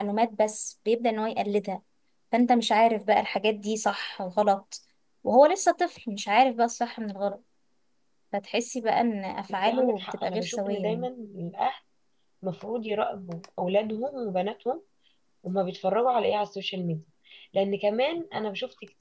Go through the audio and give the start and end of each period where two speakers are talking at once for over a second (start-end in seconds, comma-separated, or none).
9.5-11.1